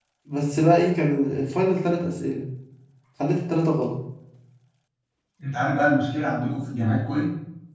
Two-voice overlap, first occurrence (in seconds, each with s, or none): none